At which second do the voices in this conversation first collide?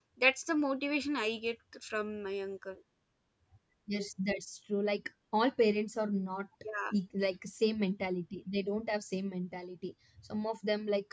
none

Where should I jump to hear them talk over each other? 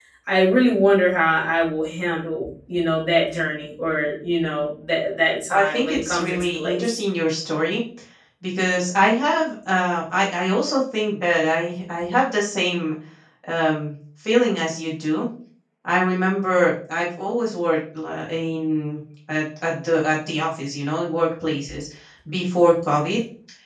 5.5 s

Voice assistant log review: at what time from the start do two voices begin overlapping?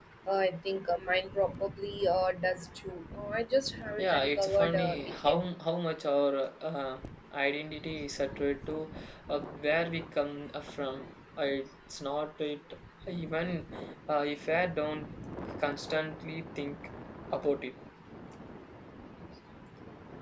4.0 s

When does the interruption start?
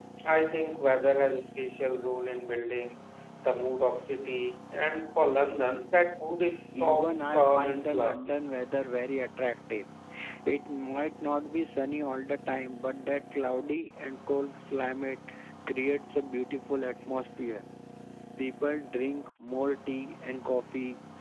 6.7 s

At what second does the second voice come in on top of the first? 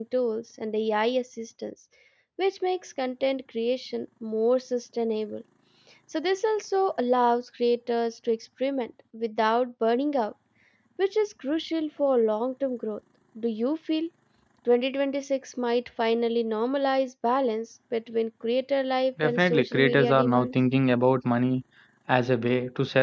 19.2 s

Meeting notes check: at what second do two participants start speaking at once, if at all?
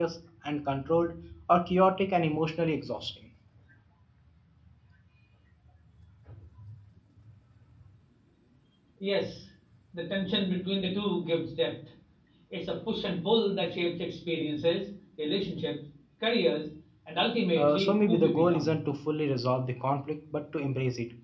17.6 s

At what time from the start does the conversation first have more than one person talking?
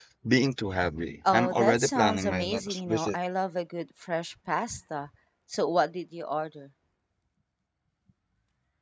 1.3 s

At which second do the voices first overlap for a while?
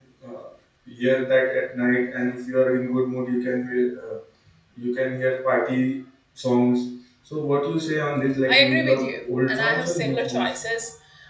8.5 s

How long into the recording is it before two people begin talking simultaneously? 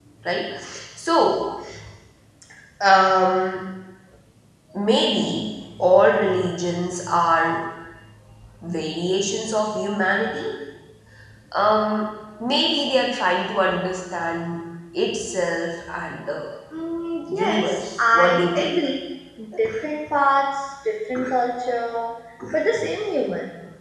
17.3 s

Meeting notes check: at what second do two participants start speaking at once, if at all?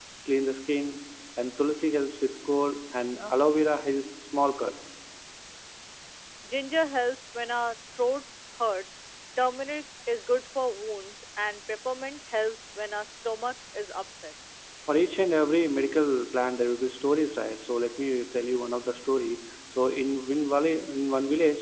none

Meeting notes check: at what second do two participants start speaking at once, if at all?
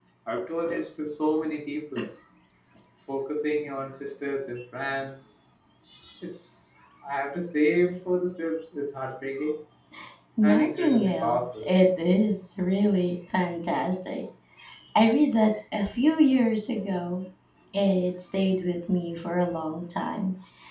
10.4 s

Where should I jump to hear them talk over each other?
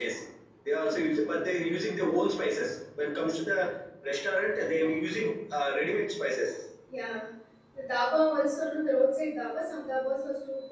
none

